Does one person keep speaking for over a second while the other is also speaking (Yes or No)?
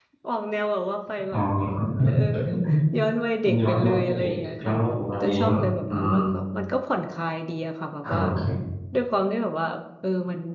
Yes